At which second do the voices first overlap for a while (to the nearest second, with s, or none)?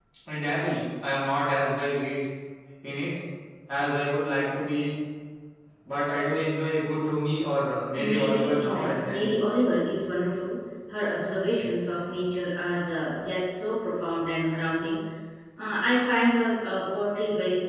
8 s